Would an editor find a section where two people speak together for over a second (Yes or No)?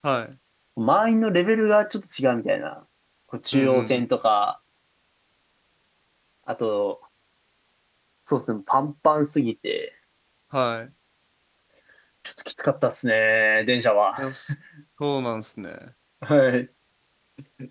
No